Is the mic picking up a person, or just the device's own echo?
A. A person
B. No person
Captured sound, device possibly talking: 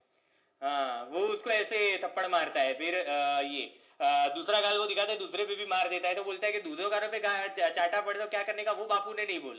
B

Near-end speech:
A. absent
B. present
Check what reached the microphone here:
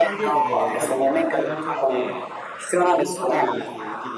B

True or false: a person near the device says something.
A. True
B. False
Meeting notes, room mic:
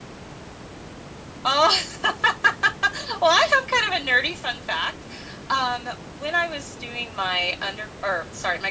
A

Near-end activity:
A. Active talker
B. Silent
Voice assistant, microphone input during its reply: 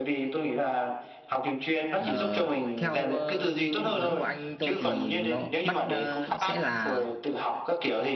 A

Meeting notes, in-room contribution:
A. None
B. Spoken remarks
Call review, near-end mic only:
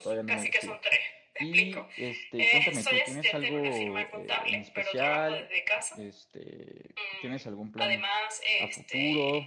B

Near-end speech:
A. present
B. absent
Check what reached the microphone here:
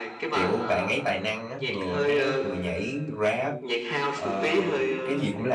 A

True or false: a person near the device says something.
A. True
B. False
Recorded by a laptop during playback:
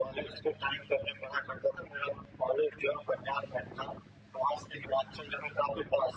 B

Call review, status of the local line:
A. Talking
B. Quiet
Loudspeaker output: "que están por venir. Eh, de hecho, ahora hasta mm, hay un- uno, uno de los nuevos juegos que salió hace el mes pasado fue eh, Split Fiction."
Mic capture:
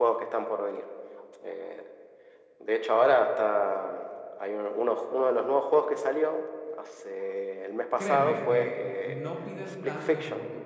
A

